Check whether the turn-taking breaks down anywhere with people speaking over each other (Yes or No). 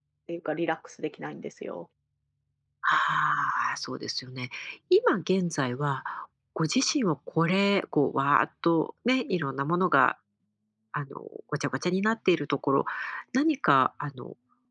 No